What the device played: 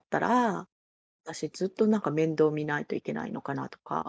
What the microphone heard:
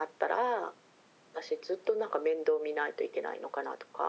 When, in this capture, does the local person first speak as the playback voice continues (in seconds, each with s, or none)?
none